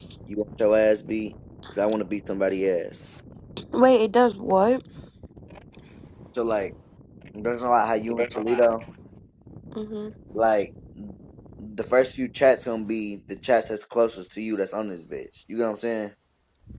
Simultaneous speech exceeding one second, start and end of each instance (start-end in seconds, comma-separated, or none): none